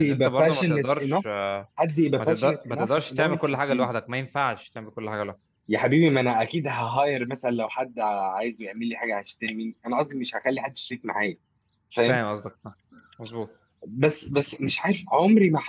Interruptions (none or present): present